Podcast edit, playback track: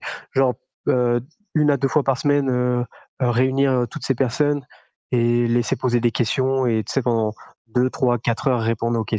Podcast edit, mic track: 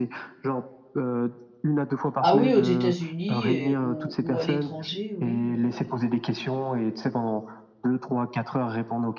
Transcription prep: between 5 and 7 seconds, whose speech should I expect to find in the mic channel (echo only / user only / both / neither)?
both